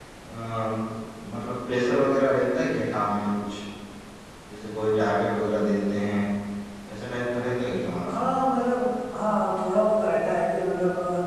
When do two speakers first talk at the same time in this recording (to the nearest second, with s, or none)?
none